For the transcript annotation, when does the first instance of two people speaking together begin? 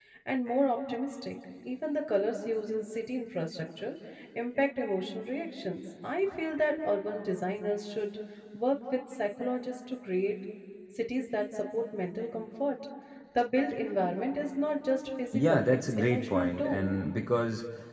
15.3 s

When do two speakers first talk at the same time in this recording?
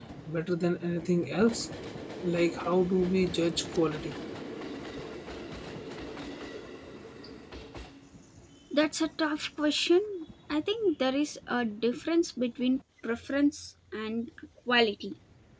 none

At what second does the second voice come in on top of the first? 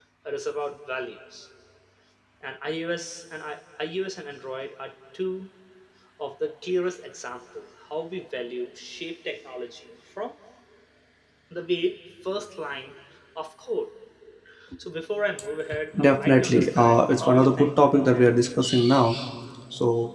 15.9 s

